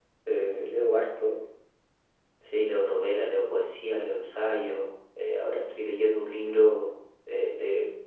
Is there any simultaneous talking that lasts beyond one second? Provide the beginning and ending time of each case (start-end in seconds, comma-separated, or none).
none